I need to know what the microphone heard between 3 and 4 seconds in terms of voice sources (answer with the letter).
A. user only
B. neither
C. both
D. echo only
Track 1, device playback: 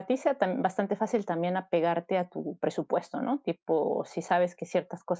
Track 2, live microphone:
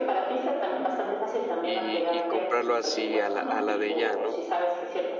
C